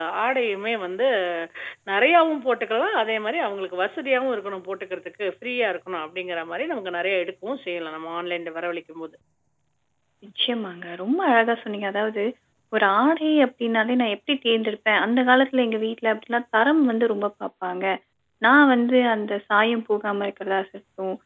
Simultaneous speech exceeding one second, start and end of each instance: none

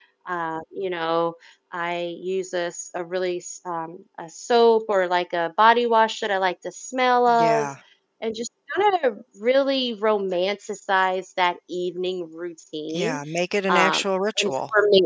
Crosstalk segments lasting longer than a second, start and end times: none

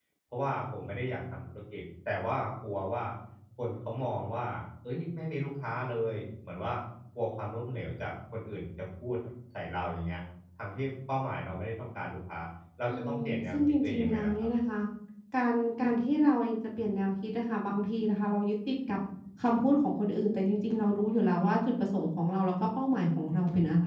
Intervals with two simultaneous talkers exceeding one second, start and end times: 12.9-14.5

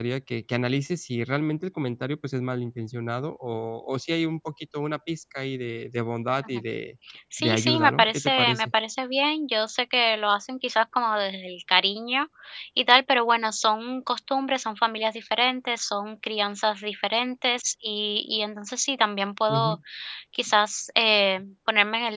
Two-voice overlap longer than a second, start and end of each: 7.4-8.7

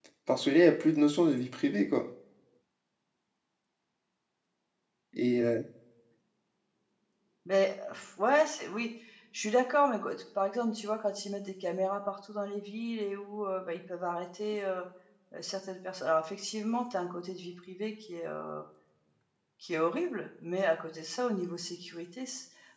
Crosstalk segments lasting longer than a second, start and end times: none

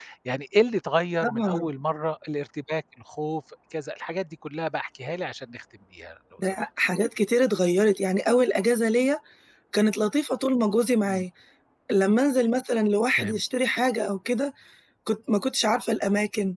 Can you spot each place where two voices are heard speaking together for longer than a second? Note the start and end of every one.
none

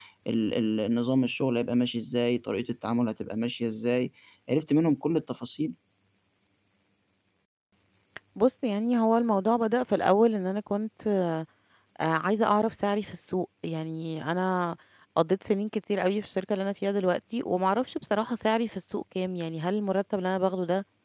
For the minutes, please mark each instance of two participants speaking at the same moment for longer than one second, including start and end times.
none

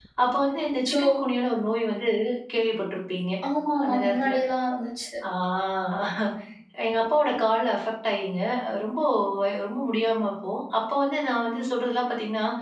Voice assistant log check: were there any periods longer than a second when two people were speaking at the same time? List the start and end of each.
none

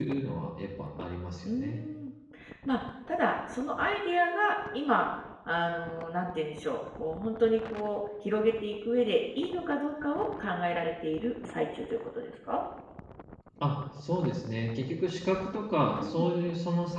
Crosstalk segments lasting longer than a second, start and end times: none

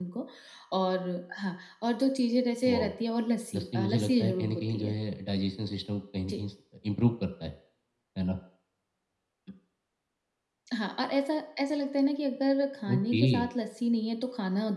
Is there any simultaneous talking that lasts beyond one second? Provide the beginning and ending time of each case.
3.5-4.9

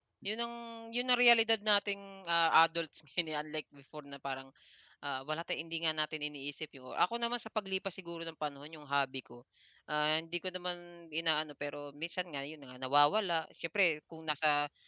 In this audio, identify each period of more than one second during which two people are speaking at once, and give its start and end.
none

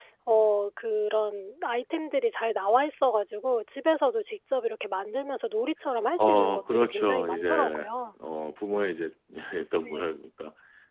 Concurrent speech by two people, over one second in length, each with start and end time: 6.2-7.9

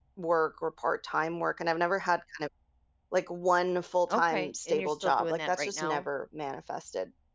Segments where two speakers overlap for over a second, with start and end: 4.1-6.1

